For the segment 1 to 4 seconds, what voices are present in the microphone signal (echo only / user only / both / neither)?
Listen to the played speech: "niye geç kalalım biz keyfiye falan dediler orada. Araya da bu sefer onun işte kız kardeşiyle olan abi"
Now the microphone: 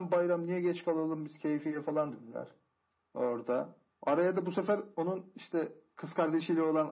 echo only